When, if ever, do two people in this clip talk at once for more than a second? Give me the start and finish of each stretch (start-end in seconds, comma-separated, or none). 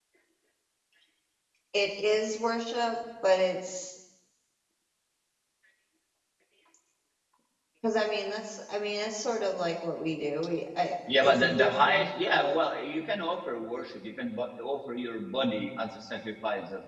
11.2-12.6